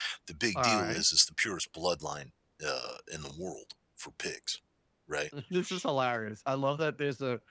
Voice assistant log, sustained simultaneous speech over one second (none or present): none